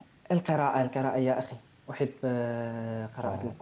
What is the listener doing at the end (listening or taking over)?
listening